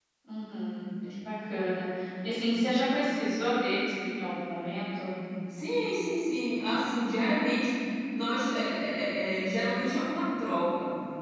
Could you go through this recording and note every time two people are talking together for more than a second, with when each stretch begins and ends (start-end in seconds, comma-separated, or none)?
none